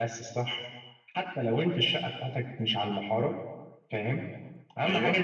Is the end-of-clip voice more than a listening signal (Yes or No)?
No